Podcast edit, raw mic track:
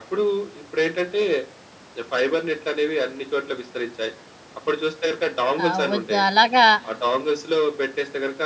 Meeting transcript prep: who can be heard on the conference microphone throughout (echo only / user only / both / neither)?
both